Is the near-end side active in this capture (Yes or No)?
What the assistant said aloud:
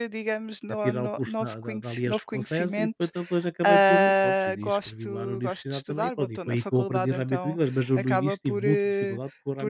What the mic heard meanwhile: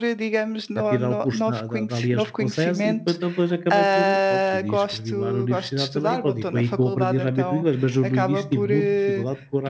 No